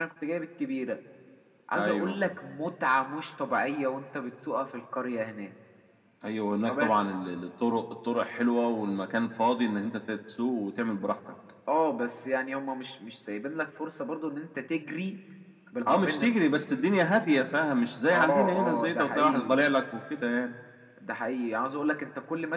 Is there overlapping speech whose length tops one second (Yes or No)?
Yes